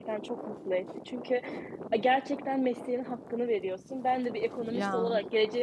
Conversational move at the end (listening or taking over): listening